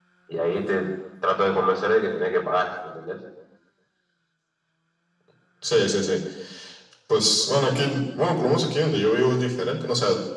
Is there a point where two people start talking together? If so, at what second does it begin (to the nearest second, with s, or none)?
none